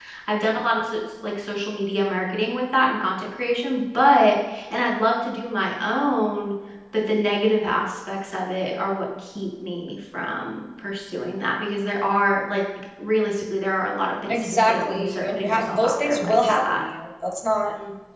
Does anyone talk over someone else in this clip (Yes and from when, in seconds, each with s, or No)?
Yes, from 14.3 s